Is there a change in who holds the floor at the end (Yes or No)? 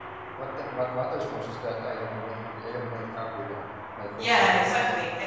Yes